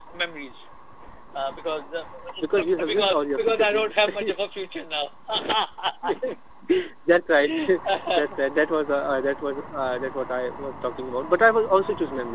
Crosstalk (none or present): present